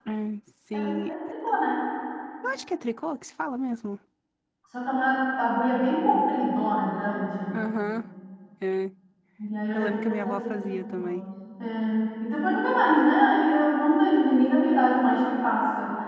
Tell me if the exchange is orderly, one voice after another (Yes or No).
No